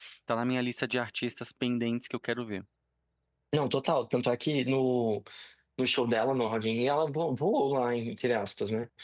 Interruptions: none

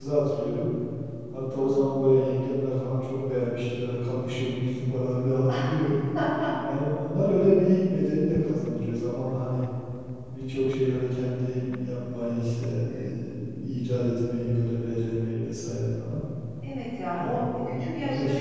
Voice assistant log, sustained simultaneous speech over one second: present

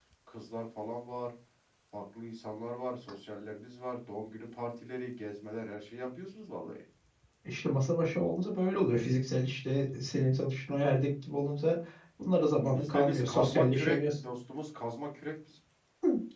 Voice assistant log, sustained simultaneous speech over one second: present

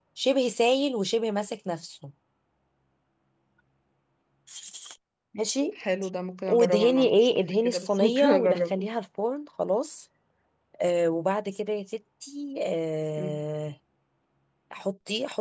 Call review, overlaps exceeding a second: present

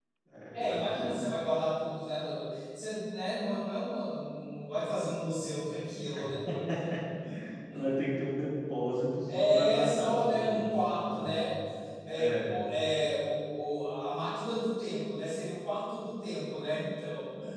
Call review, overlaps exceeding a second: present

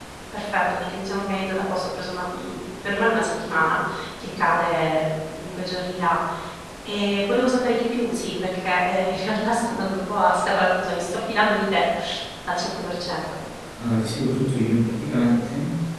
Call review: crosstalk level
none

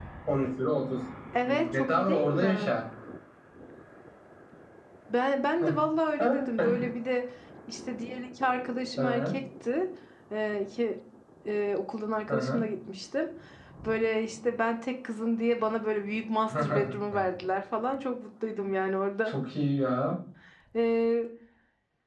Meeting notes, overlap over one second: present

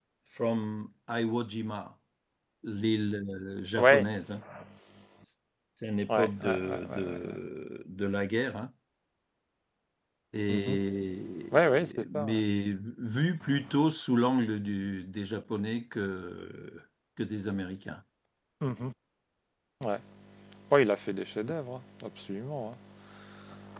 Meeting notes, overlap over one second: present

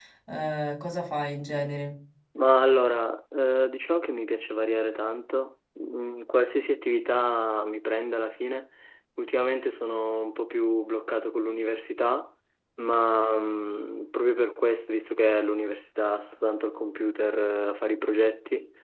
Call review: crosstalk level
none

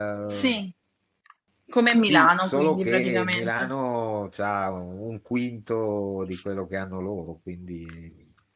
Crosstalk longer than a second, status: present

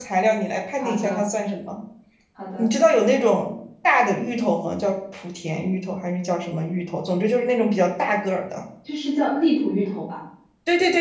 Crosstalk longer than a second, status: none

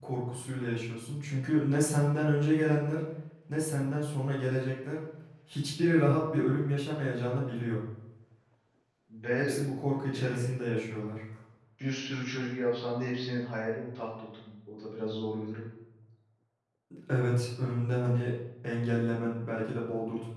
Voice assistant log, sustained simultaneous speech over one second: none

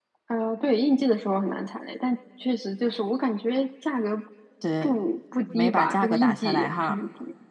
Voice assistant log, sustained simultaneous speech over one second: present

